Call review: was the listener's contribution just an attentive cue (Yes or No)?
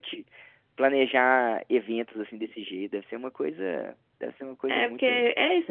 No